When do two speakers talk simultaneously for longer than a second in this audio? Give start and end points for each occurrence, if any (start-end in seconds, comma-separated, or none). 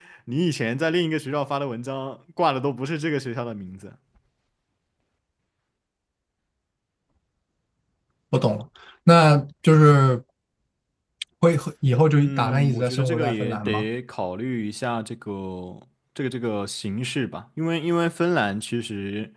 12.2-13.9